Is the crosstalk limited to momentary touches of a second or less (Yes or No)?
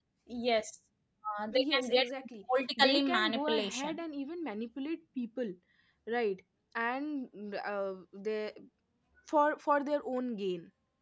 No